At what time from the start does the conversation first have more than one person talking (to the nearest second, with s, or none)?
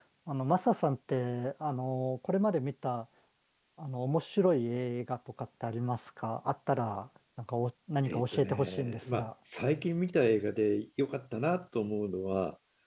8 s